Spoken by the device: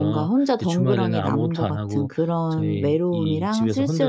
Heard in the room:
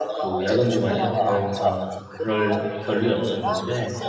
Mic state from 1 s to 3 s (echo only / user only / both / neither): both